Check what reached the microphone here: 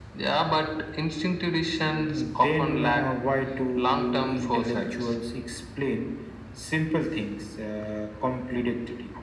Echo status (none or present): present